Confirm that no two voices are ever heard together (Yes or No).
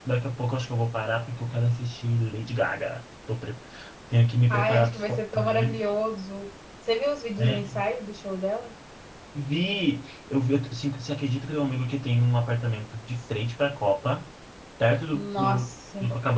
No